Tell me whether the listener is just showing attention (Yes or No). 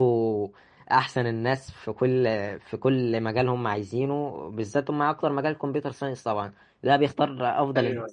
Yes